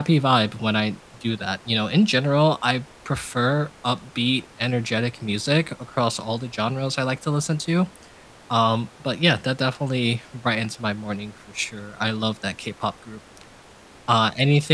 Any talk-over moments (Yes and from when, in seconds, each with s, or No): No